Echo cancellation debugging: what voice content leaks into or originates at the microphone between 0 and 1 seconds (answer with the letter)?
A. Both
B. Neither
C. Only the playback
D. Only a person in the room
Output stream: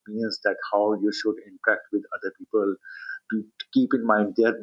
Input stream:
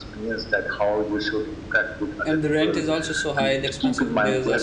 C